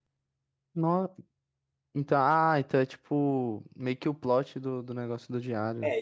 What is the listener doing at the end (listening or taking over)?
taking over